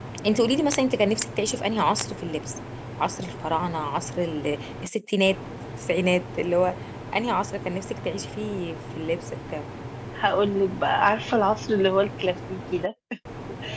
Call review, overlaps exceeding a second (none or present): none